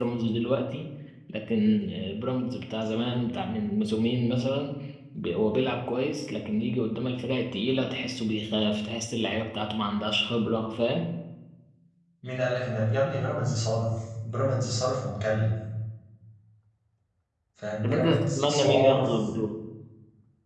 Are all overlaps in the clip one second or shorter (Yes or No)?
No